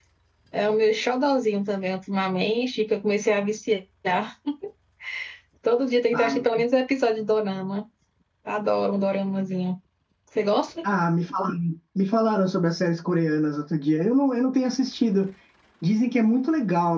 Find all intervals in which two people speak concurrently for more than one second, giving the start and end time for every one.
none

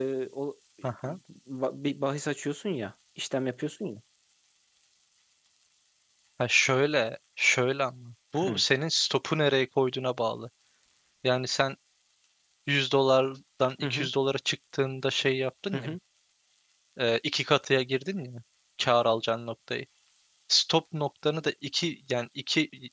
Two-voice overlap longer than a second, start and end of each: none

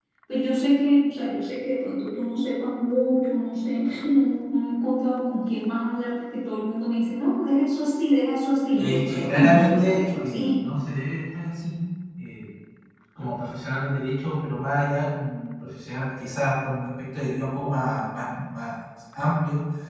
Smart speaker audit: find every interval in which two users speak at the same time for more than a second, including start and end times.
8.8-10.7

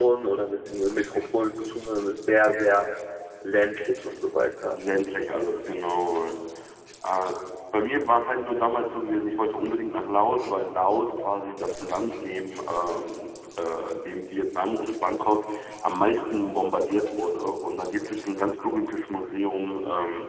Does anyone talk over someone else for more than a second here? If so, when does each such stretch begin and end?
none

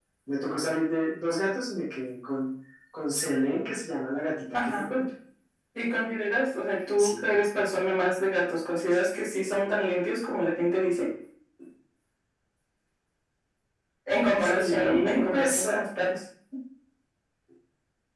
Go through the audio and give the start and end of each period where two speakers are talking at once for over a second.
14.4-15.8

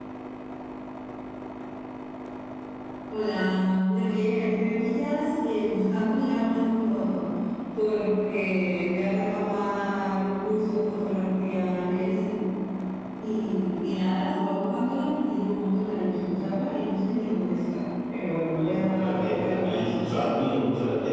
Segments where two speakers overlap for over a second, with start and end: 18.6-20.4

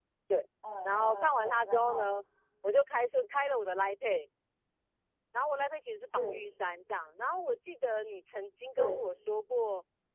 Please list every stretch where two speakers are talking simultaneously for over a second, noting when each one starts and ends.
0.8-2.0

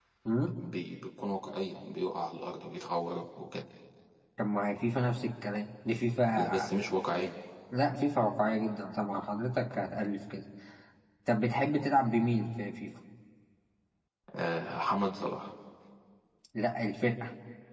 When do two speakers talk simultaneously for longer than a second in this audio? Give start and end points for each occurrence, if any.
none

